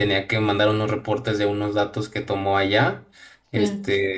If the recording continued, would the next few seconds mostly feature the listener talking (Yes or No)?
No